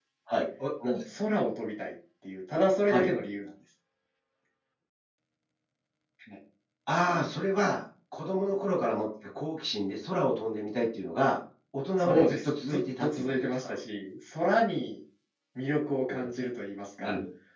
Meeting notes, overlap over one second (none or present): present